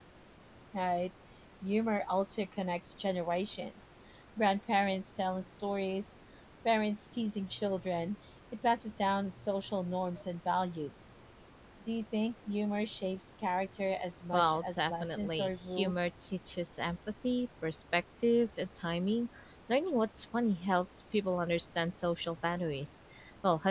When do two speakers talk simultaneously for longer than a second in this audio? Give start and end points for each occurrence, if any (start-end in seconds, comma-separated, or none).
14.3-16.1